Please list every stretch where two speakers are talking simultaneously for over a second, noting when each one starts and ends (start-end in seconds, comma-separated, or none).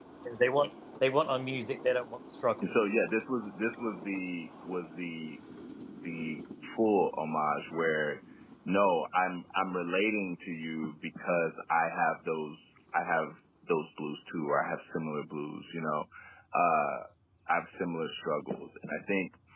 none